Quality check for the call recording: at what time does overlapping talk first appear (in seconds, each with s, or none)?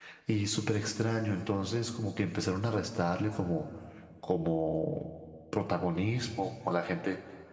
none